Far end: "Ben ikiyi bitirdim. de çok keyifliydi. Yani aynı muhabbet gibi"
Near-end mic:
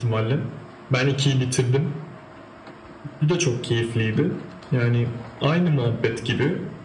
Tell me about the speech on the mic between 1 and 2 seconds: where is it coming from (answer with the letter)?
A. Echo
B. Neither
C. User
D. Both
A